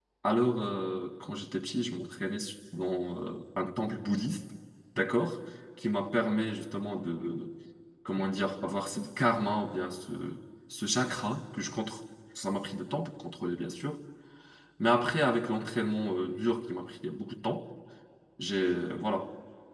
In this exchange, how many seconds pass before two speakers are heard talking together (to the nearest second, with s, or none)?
none